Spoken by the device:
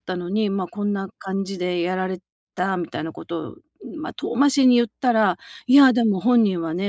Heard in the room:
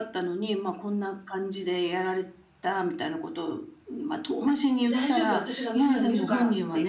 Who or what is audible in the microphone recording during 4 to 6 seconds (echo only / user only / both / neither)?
both